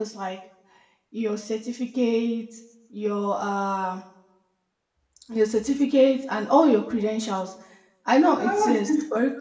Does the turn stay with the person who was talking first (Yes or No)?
Yes